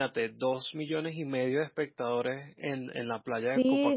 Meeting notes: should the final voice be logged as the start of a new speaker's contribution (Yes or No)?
Yes